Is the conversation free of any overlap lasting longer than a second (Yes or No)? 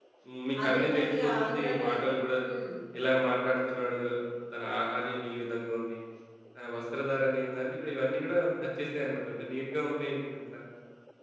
No